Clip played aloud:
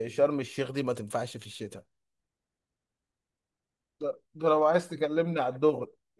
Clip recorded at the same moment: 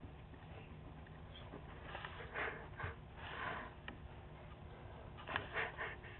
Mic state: neither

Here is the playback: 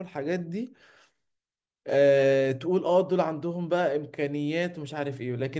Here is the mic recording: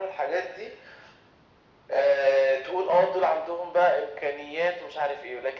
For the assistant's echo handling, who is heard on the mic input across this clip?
echo only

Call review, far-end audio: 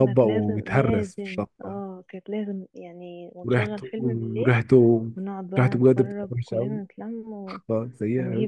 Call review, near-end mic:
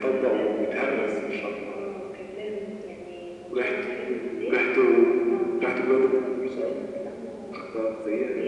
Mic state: echo only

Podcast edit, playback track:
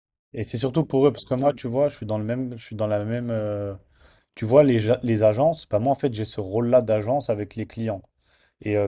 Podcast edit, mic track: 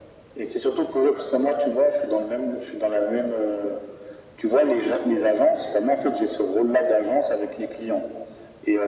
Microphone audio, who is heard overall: echo only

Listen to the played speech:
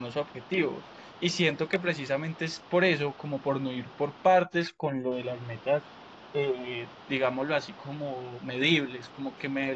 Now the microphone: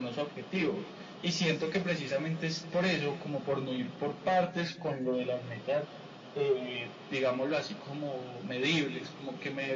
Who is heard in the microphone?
echo only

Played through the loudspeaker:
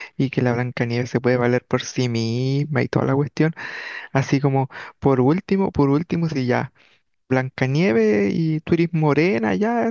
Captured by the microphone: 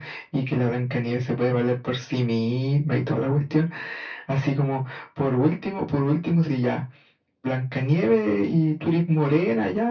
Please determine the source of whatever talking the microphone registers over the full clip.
echo only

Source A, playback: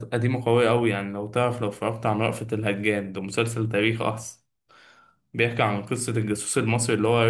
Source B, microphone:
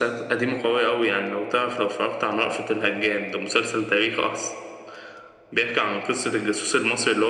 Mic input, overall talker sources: echo only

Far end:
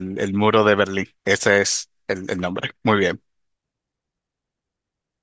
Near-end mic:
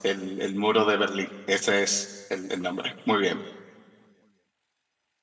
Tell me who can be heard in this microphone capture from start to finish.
echo only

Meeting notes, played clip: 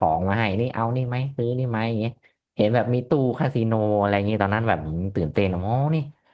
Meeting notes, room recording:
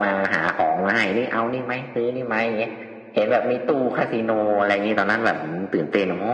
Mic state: echo only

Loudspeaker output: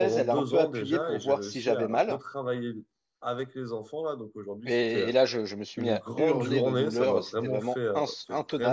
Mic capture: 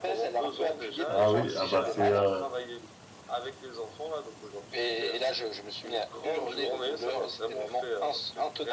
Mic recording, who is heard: both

